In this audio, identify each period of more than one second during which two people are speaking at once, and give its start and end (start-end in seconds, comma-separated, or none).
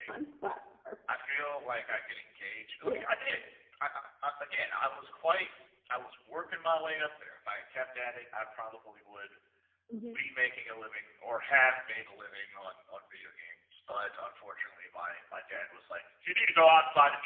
none